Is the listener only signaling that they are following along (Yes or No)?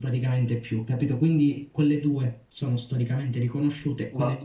Yes